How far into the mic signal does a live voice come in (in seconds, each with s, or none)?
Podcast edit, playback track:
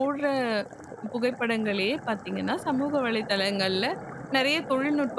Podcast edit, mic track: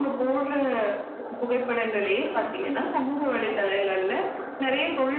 none